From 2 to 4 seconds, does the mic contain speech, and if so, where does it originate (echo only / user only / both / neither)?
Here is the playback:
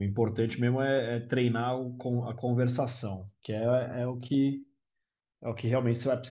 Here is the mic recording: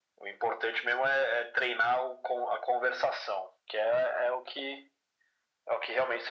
echo only